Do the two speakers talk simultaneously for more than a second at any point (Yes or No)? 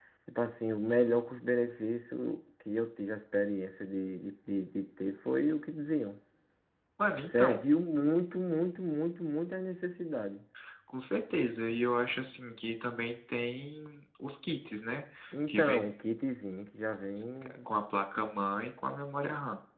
No